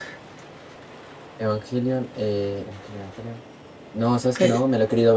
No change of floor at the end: Yes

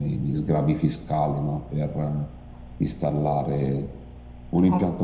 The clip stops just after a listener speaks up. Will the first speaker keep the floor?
Yes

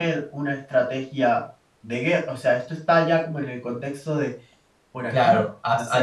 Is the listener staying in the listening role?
No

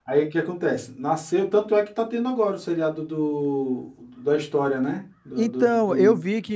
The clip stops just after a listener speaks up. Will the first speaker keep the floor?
No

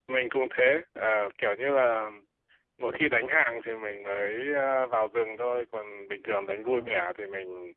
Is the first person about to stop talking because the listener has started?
No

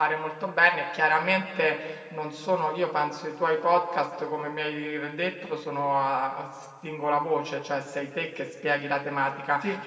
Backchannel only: Yes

